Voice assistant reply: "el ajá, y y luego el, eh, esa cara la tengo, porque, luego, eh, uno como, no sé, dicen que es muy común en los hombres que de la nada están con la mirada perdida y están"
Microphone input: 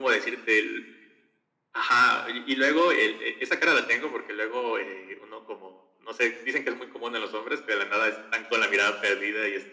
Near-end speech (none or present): none